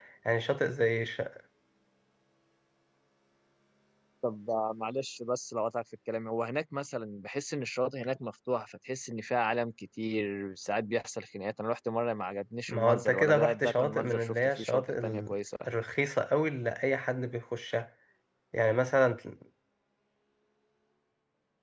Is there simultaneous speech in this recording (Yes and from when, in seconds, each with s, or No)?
Yes, from 12.7 s